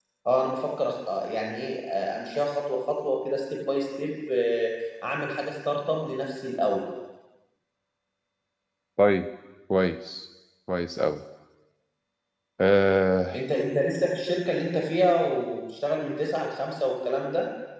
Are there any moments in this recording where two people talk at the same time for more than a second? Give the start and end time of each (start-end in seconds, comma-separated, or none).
none